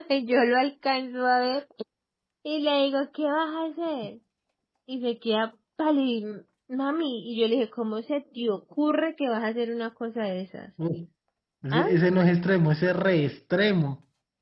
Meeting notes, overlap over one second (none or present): none